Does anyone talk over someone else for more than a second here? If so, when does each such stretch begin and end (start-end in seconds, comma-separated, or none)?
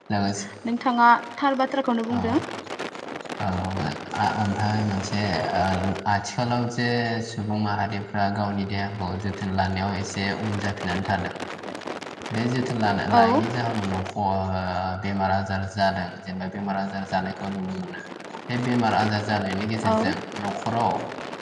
none